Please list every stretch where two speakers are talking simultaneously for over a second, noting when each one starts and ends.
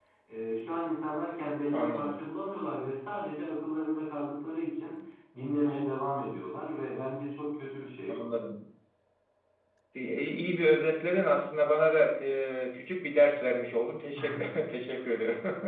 none

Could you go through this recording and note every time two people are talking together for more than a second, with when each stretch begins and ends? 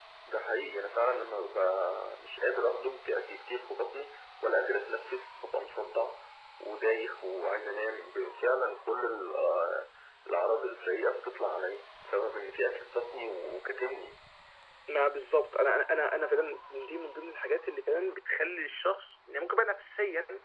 none

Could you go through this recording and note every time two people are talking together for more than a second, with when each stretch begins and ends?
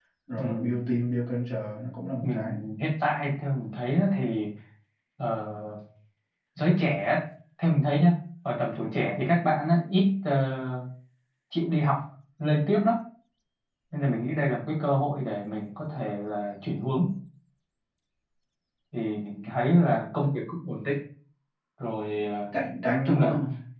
none

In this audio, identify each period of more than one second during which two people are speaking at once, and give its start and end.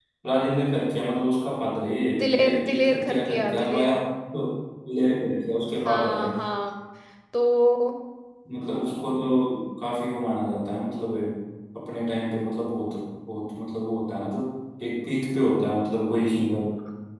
2.2-4.0

